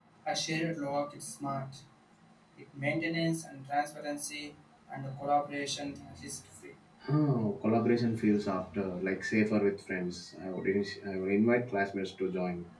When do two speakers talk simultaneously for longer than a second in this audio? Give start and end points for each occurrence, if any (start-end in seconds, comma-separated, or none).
none